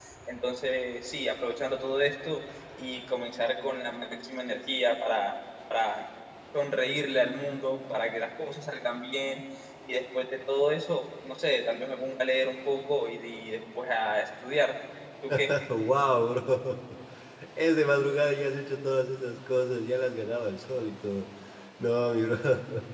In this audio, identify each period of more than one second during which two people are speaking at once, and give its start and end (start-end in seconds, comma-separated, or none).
none